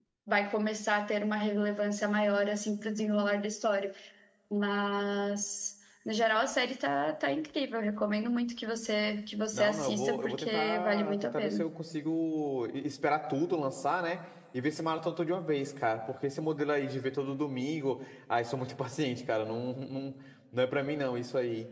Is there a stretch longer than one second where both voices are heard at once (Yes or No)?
Yes